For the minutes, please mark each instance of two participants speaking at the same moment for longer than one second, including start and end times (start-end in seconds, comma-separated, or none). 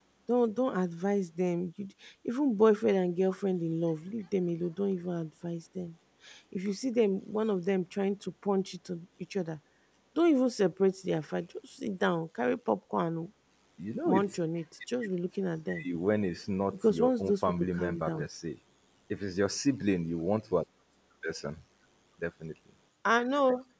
16.7-18.2